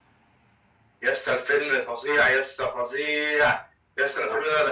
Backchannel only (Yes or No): Yes